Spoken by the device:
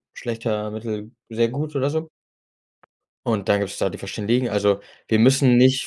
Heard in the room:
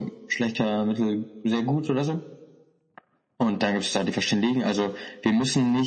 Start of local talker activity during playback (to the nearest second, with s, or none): none